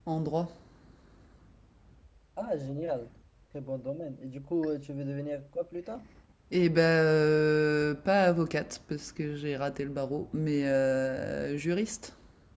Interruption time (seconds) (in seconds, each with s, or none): none